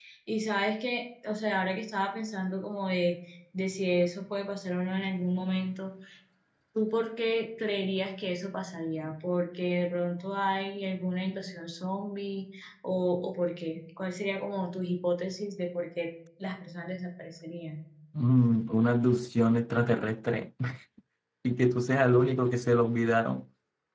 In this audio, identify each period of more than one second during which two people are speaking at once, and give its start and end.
none

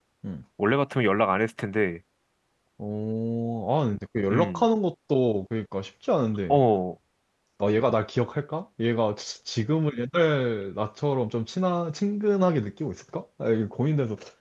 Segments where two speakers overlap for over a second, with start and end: none

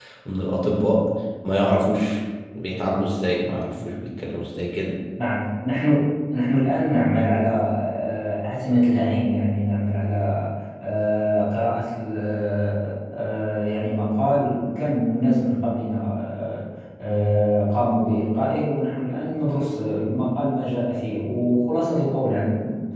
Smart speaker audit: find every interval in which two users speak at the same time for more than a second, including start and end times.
none

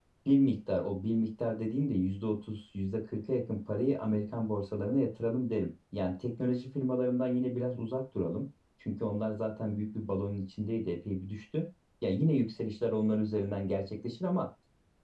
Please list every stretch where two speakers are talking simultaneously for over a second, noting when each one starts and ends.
none

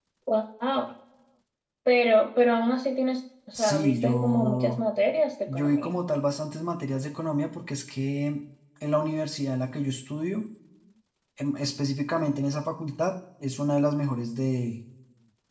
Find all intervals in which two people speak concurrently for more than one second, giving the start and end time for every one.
3.5-4.8

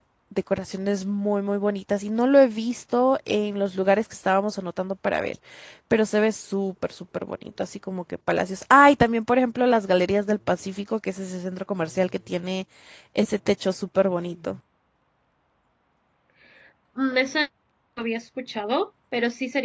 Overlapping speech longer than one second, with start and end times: none

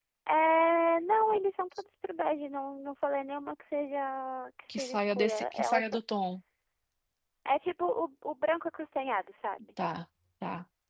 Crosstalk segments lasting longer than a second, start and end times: 4.7-6.0

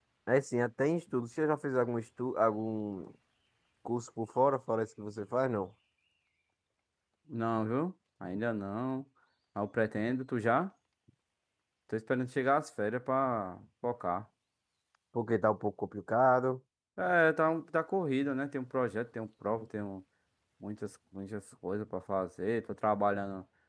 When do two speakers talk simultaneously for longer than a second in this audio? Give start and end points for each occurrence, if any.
none

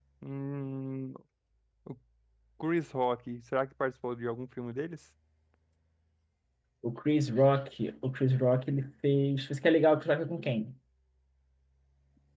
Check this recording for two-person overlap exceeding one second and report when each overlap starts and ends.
none

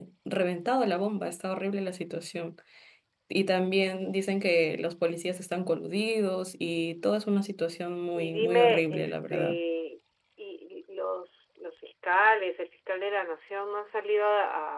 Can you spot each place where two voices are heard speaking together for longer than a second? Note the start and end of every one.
8.1-9.6

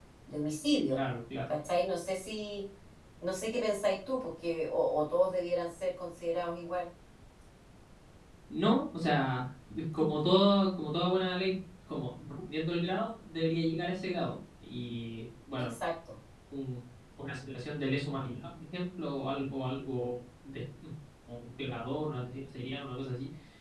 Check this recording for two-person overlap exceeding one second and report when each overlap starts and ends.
none

